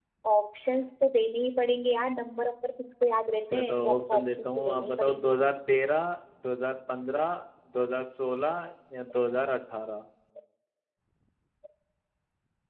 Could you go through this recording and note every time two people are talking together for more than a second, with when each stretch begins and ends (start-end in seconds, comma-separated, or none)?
3.5-5.3